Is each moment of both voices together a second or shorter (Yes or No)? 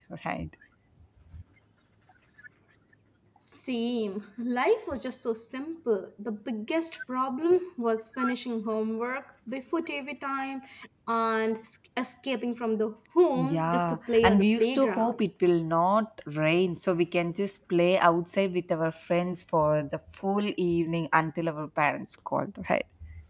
No